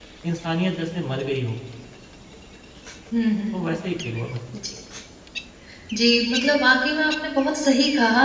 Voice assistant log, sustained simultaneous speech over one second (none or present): none